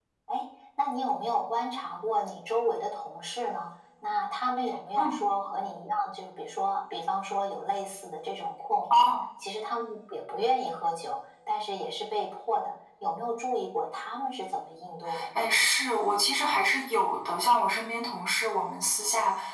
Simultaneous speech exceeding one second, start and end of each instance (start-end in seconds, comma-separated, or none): none